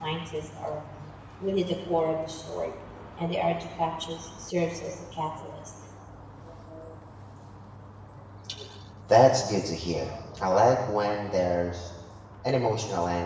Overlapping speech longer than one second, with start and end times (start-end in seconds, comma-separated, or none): none